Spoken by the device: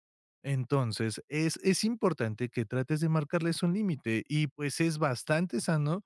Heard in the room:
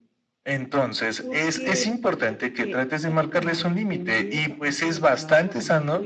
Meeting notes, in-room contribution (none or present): present